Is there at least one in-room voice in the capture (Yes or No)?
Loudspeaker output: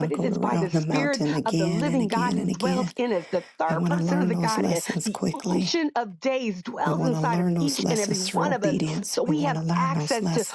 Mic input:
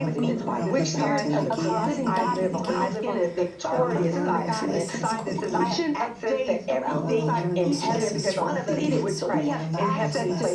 Yes